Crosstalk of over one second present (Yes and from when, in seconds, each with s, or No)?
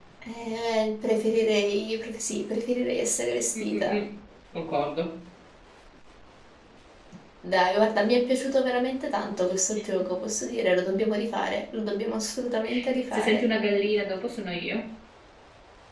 No